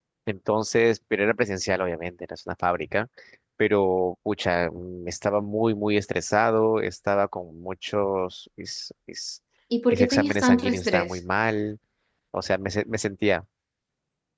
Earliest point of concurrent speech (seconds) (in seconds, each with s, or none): 9.9 s